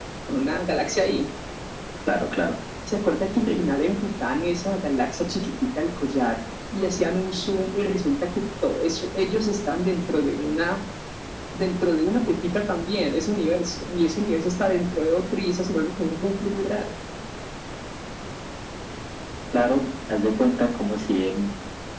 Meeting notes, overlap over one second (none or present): none